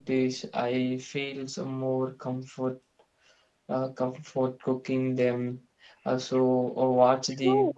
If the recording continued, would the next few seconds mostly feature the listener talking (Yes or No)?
Yes